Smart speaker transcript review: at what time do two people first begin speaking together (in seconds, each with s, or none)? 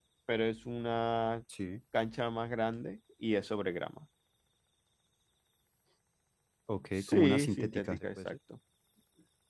7.0 s